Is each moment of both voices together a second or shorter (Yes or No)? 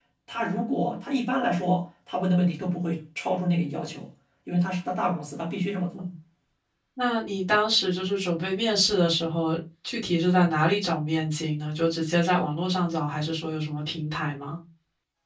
Yes